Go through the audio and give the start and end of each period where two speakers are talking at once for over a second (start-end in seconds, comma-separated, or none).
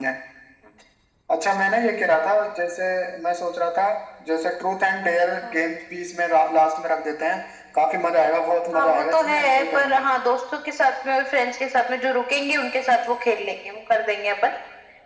8.7-10.1